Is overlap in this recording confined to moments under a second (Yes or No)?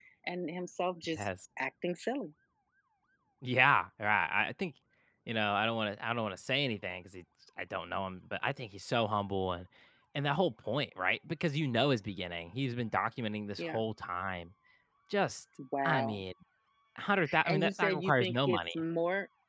No